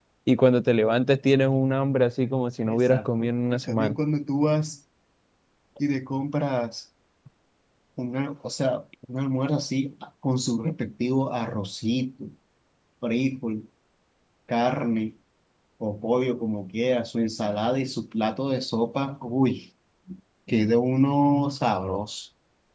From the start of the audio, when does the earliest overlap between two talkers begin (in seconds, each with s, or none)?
2.6 s